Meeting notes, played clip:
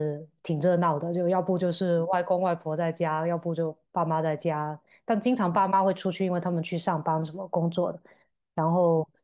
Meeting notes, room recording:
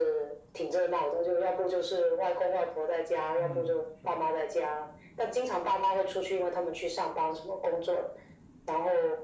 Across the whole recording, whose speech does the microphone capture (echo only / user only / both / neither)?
both